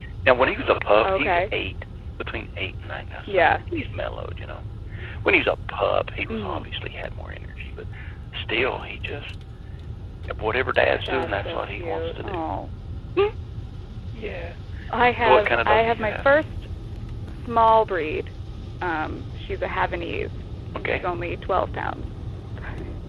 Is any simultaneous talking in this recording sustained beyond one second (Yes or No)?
Yes